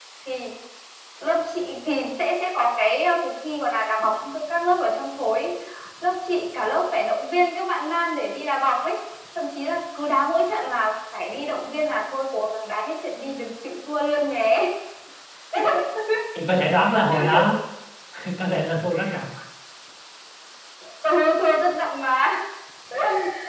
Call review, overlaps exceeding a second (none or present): none